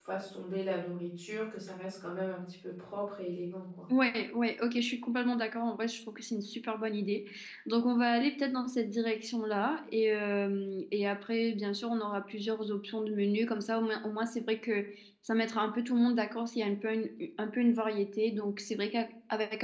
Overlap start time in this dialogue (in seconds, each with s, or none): none